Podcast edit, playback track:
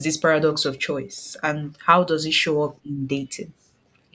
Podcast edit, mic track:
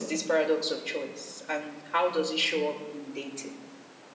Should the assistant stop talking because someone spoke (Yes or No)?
Yes